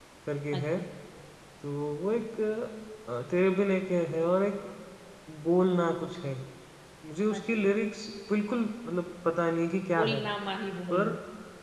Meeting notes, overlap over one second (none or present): none